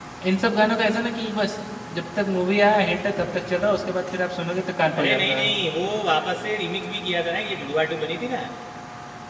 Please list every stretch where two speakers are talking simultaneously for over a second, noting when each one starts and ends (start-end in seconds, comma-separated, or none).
none